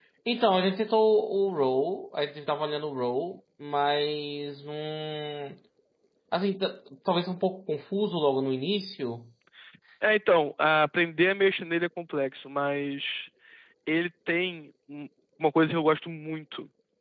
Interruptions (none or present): none